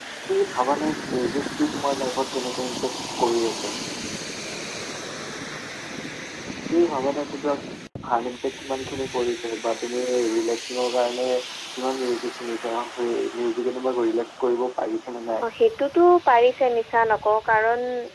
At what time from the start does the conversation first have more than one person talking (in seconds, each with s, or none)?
none